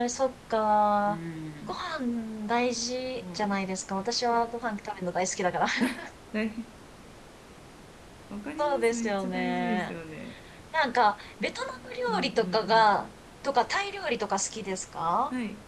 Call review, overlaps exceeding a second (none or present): present